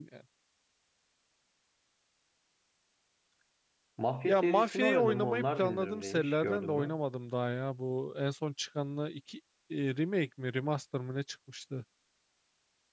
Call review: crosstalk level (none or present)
present